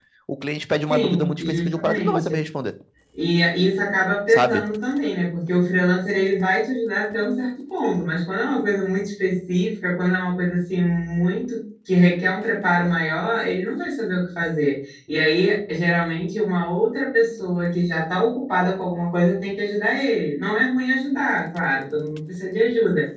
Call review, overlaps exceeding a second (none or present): present